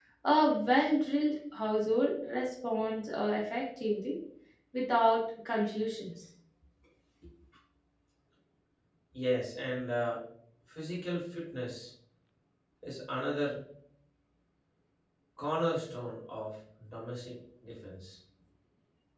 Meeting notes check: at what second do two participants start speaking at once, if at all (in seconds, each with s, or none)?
none